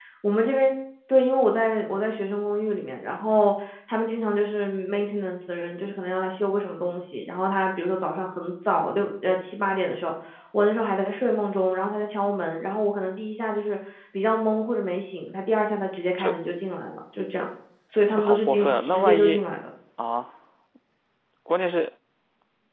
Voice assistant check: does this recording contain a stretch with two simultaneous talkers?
Yes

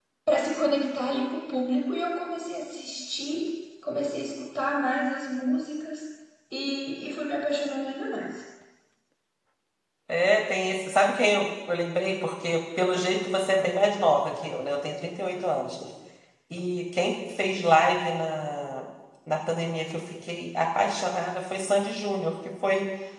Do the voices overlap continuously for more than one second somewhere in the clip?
No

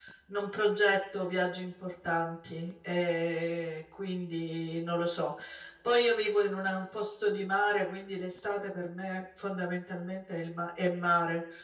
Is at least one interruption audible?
No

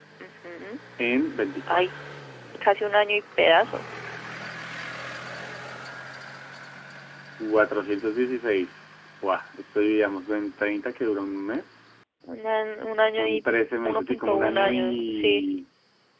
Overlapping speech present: Yes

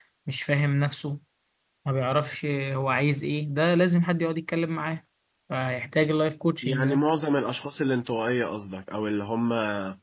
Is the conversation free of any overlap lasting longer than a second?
Yes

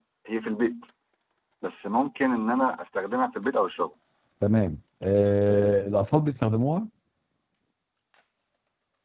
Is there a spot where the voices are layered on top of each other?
No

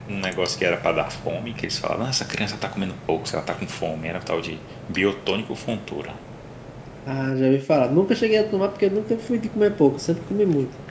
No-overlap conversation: Yes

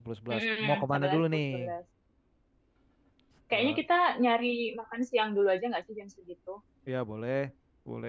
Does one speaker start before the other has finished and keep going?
Yes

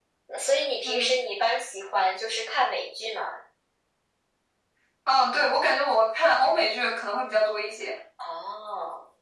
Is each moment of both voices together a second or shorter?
Yes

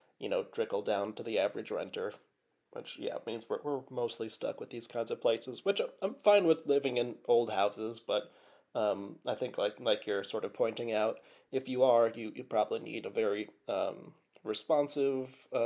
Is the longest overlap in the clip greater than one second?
No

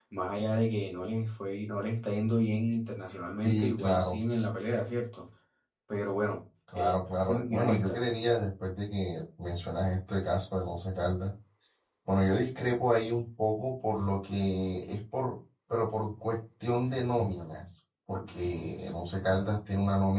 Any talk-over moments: Yes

